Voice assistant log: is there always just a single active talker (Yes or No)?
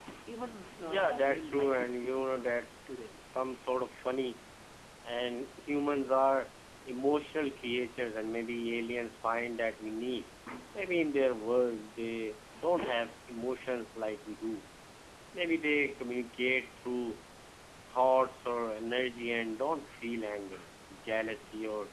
No